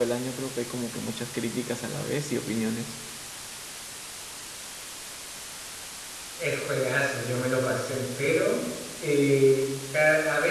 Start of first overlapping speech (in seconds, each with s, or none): none